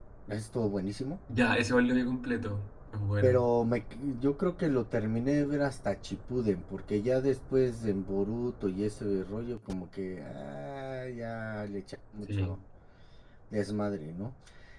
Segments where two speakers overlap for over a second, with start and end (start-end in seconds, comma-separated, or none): none